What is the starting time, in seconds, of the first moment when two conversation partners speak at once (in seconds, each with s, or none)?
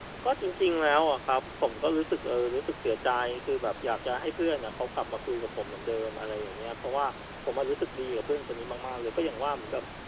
none